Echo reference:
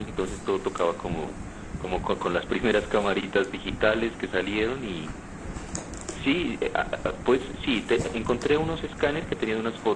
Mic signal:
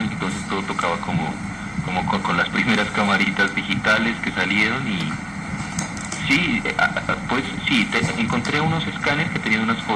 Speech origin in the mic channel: echo only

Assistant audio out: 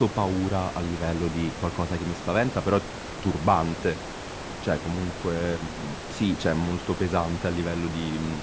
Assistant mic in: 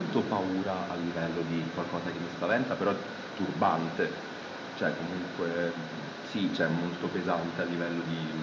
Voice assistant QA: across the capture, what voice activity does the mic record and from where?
echo only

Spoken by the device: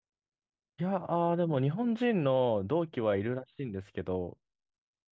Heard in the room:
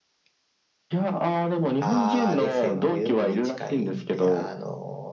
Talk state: both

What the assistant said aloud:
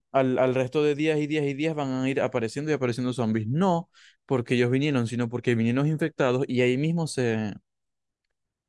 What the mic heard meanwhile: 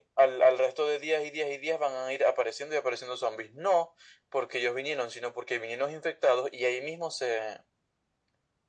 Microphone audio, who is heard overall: echo only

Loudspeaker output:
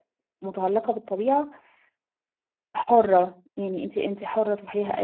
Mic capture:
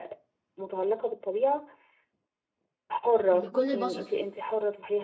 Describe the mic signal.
both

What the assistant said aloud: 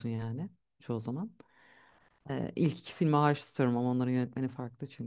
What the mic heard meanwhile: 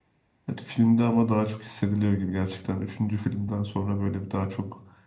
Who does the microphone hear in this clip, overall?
user only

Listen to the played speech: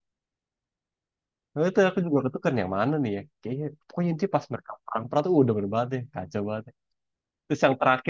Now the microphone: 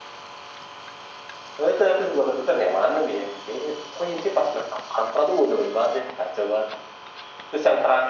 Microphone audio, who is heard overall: echo only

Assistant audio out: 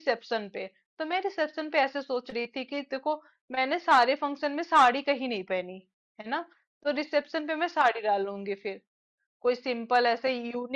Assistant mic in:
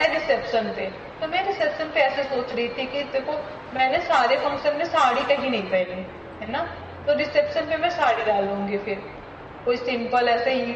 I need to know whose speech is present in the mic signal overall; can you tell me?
echo only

